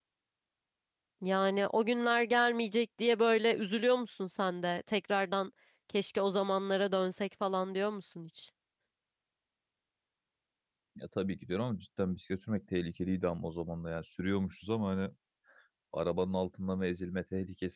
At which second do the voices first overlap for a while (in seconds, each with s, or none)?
none